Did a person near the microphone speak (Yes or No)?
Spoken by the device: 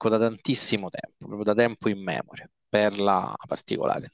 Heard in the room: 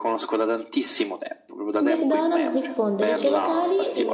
Yes